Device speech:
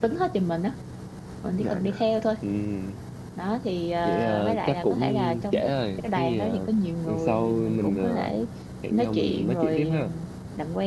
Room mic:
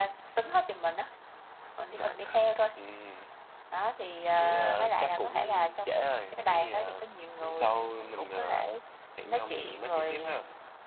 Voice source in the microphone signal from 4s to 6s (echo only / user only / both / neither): echo only